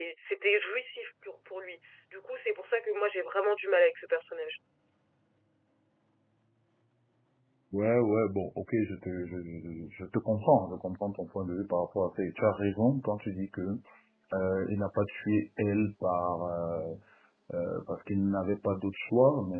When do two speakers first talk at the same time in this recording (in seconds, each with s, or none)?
none